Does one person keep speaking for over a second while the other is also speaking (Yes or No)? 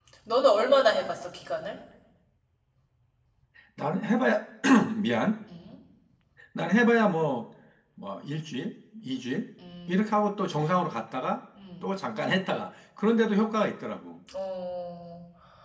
No